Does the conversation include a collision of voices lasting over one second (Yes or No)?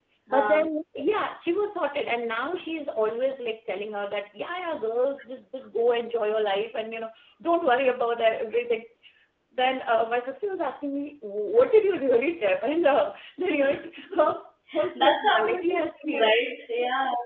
Yes